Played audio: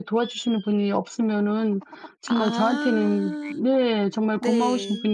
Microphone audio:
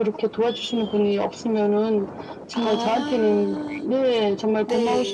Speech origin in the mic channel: echo only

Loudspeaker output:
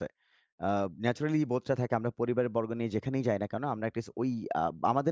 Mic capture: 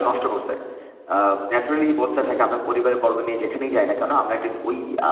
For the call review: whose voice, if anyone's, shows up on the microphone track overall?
echo only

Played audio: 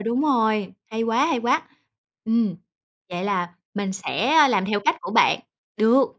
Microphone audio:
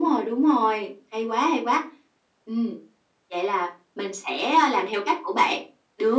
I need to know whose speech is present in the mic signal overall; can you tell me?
echo only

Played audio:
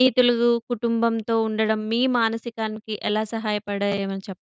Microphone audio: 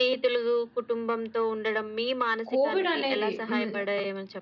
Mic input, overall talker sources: both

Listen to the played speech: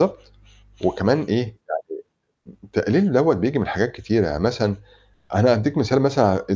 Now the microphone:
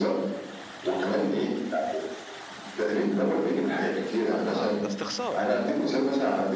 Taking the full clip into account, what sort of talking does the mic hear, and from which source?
both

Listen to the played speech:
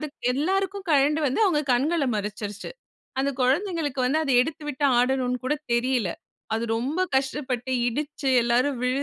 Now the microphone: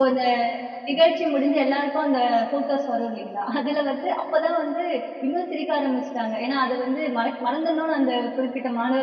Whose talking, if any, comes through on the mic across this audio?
user only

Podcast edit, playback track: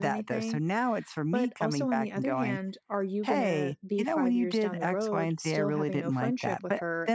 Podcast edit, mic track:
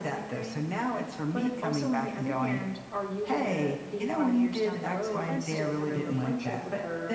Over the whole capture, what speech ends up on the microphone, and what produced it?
both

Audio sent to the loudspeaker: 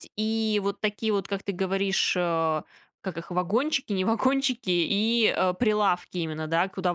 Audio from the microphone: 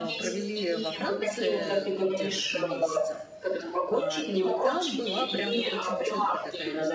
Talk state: both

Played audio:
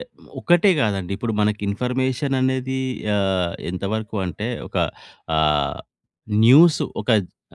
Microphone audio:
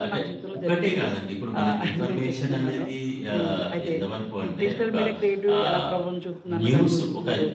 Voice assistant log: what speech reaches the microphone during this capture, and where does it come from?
both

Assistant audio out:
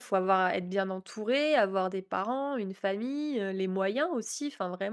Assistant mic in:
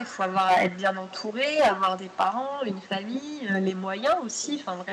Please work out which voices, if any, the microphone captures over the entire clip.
echo only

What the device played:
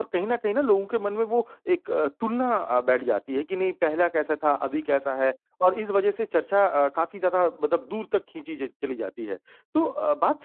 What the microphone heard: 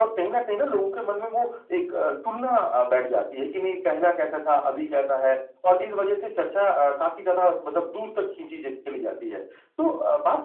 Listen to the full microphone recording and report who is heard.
echo only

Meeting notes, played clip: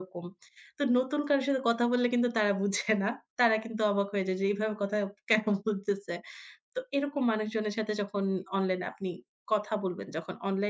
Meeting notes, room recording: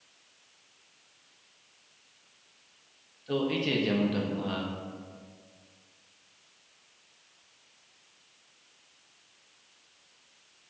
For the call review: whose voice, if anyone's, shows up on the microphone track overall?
user only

